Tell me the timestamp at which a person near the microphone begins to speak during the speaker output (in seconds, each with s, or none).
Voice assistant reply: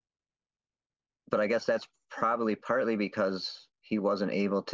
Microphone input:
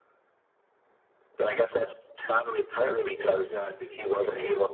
2.9 s